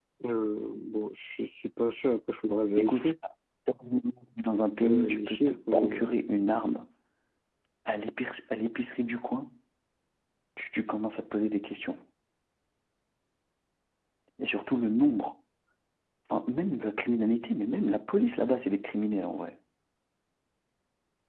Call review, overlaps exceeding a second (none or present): present